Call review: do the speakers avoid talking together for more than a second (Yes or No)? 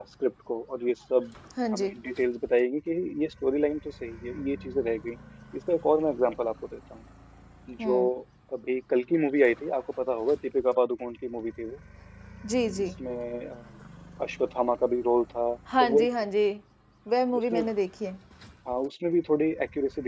Yes